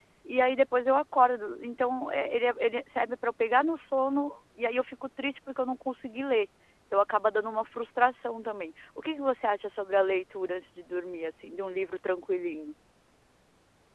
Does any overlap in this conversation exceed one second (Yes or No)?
No